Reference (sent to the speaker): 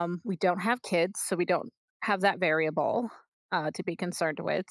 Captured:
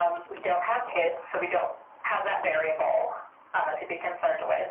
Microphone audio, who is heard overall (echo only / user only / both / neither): echo only